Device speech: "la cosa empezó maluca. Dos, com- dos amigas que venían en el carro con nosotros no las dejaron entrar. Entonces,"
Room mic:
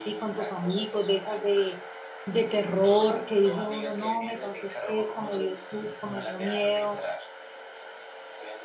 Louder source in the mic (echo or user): user